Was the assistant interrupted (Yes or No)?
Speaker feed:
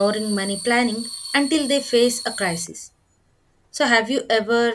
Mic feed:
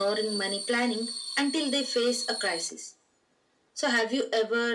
No